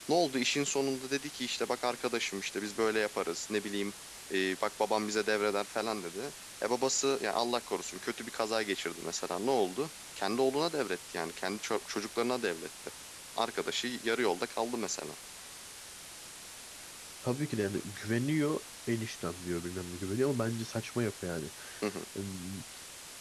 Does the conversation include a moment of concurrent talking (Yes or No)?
No